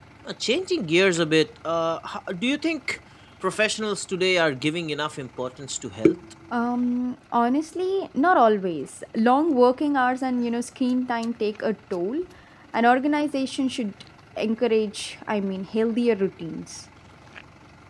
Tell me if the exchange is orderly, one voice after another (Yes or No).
Yes